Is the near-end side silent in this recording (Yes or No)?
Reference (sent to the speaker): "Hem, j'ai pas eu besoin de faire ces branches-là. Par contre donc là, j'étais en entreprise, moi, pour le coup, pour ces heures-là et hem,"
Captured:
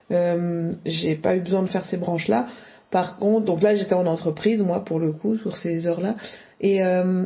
Yes